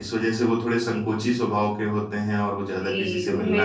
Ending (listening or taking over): taking over